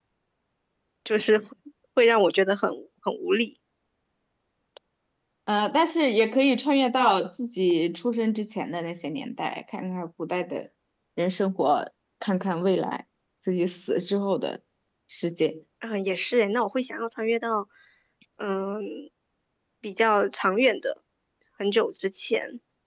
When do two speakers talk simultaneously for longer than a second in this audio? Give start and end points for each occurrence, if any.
none

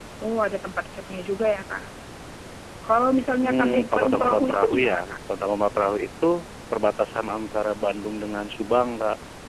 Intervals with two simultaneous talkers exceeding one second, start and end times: 3.4-5.2

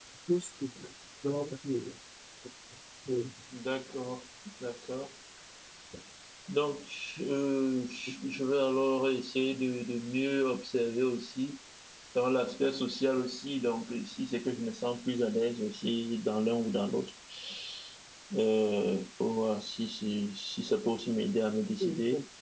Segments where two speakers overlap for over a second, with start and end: none

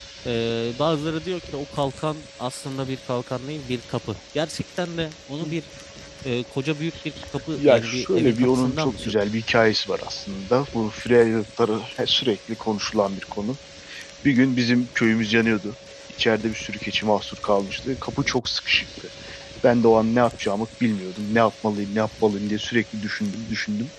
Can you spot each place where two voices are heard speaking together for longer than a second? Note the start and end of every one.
7.5-9.1

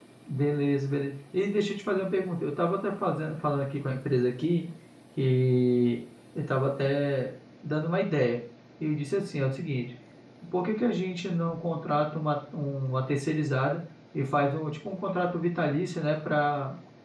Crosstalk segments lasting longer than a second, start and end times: none

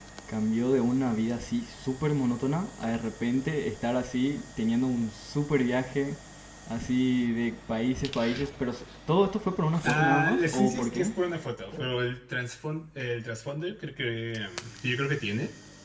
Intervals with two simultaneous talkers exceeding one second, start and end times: 9.9-11.1

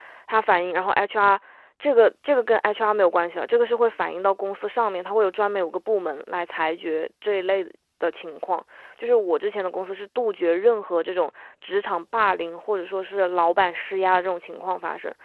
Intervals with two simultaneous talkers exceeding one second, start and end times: none

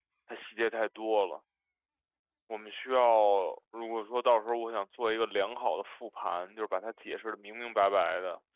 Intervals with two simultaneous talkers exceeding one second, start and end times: none

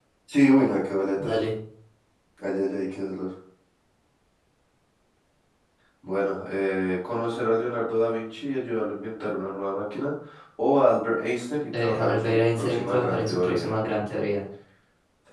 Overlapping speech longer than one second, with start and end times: 11.8-13.7

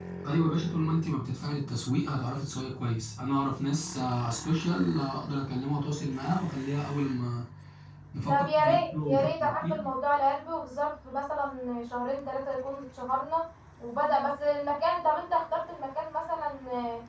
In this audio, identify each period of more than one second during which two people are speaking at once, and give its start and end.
8.3-9.7

